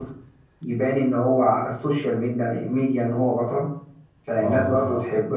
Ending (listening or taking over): listening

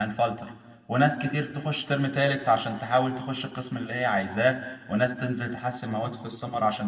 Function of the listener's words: listening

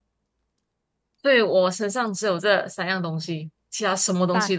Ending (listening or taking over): taking over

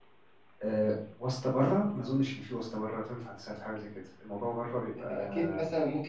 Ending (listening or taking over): taking over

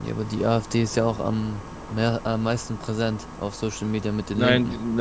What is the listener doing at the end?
taking over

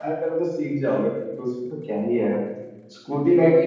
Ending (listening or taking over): listening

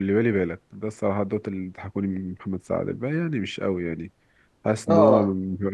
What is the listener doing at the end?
listening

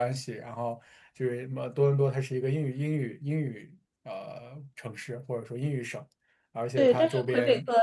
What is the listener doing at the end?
taking over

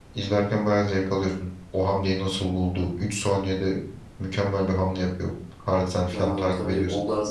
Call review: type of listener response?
taking over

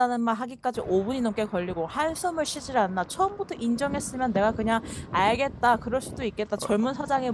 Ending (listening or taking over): listening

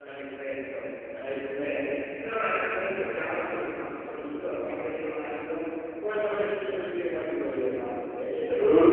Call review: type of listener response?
listening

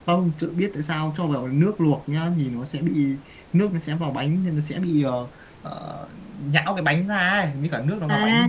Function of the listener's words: taking over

